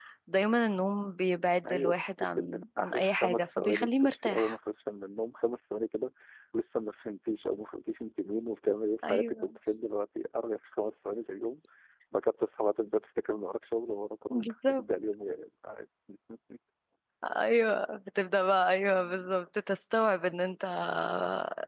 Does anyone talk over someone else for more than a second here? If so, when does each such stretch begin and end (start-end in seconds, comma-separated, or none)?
2.4-4.6